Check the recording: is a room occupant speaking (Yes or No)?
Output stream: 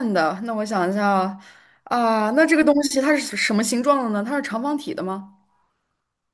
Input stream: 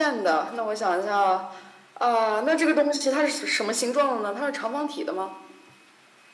No